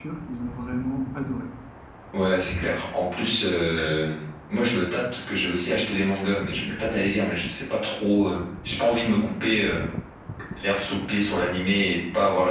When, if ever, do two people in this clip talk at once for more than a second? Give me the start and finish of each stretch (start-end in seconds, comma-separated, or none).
none